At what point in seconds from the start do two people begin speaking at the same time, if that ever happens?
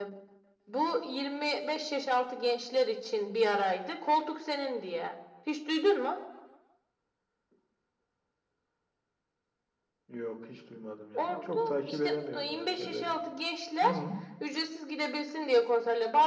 11.2 s

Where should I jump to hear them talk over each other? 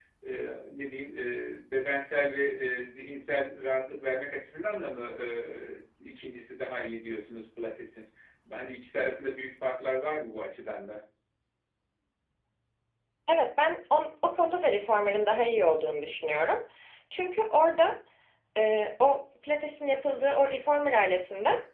none

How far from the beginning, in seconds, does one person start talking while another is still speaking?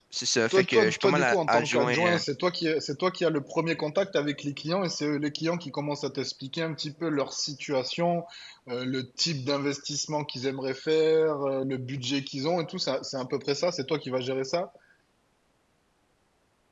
0.5 s

